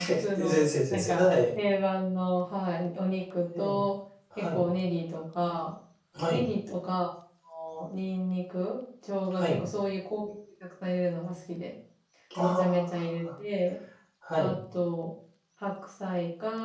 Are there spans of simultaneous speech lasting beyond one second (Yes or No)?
Yes